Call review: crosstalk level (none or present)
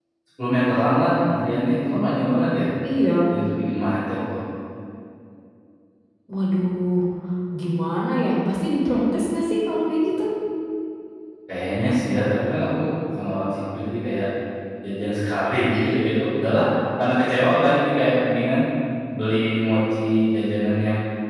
none